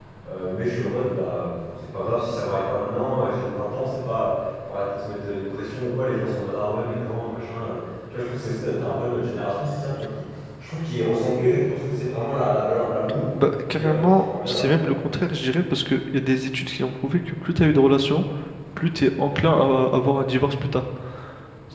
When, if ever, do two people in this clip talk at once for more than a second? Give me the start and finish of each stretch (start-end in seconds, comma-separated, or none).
13.7-15.1